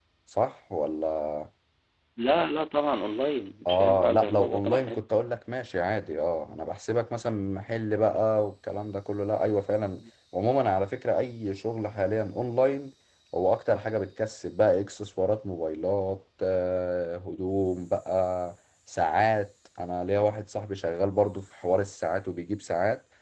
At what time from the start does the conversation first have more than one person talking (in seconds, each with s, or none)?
3.6 s